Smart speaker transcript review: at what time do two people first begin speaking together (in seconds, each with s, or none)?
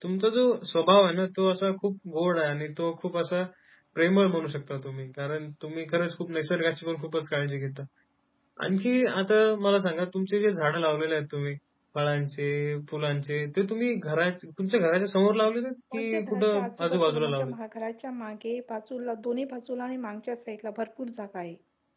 15.9 s